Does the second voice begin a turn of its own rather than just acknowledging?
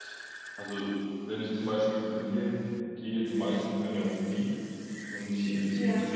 No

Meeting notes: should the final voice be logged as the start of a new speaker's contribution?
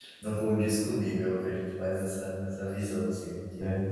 No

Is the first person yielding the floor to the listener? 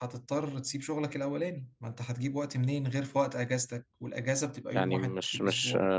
Yes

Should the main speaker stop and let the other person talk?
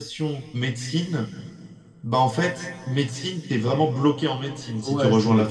Yes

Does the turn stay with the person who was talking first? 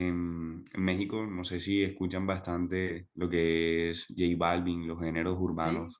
Yes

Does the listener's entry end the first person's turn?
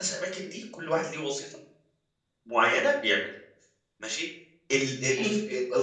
No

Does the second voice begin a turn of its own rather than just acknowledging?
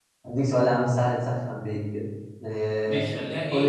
Yes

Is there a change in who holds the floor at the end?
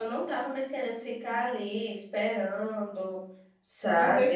Yes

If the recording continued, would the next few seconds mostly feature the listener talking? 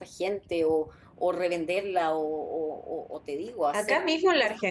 Yes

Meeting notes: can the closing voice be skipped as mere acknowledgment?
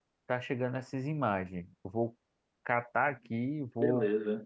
Yes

